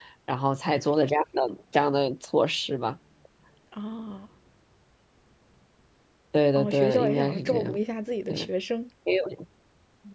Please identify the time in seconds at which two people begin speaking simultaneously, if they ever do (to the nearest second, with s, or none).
7 s